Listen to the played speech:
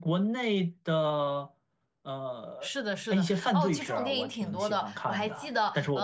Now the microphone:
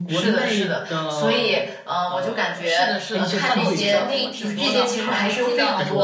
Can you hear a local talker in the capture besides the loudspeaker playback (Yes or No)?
Yes